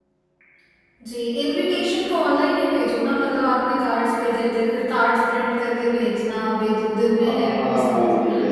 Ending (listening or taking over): taking over